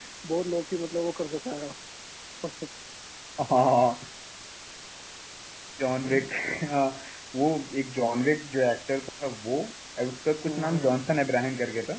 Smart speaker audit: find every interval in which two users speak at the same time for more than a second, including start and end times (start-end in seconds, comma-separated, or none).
none